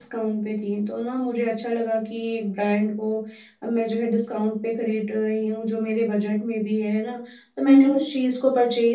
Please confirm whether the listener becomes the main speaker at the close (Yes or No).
No